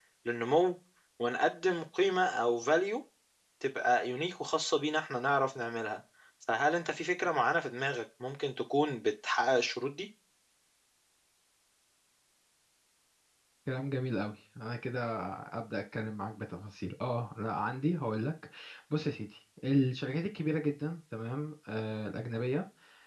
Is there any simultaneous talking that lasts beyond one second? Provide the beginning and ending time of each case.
none

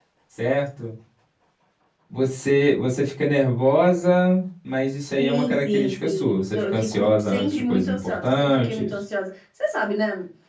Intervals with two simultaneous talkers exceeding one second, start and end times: 5.2-8.9

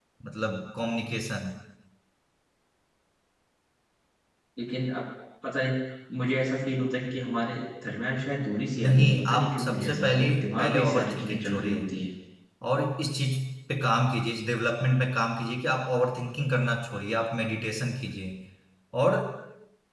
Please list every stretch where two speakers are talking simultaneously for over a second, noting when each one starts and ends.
8.8-11.9

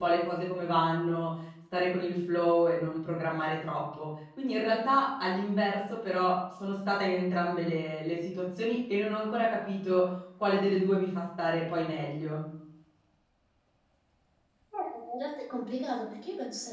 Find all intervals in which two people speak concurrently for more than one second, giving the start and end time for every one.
none

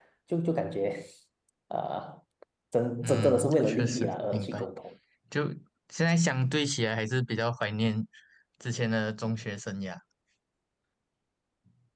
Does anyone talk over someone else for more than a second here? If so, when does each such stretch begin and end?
3.0-4.7

